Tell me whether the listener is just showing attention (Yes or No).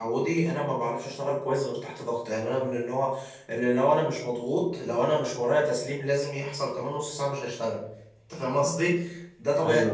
Yes